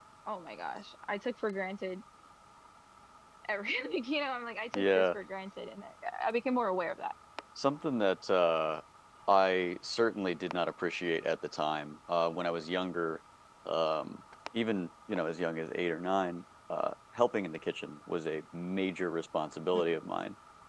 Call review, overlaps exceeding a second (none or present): none